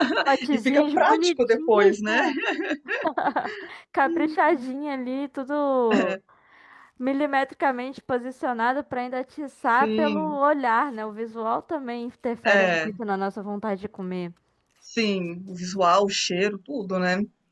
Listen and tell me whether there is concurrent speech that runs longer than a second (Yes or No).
Yes